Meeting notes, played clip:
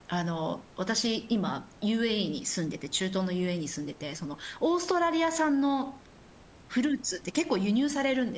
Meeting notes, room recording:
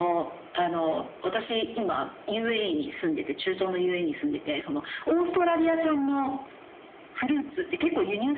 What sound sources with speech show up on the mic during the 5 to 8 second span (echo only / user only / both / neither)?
echo only